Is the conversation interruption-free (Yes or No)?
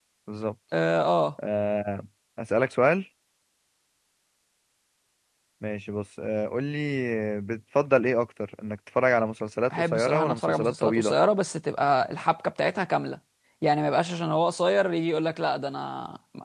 No